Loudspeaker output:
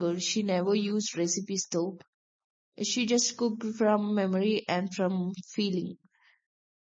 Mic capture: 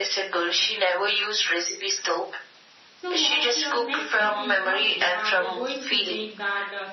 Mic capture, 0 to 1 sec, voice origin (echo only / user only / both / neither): echo only